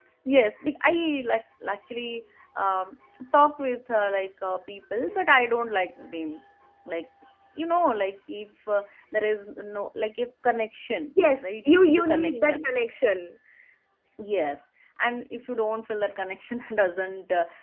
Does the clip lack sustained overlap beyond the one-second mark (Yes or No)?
No